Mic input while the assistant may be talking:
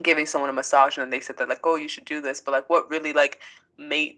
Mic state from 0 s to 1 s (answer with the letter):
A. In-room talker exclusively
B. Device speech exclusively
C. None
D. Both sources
B